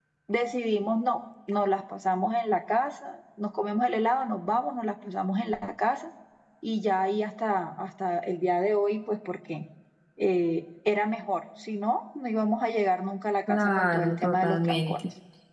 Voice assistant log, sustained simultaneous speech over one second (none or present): present